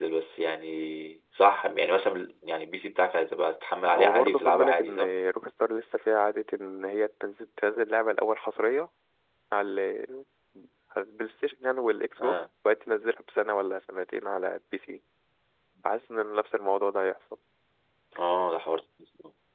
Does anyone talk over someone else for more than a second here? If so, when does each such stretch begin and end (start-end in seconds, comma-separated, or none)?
3.9-5.1